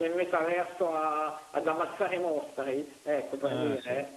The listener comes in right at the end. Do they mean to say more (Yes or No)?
No